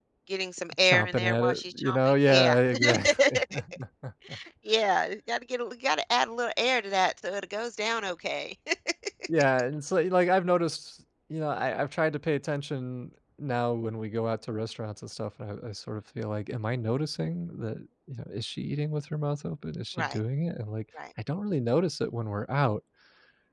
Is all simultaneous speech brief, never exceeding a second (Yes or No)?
No